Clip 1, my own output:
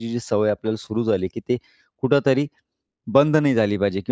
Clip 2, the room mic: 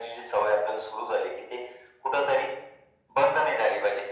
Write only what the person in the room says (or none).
none